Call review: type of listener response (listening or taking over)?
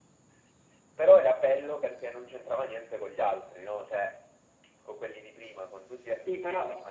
taking over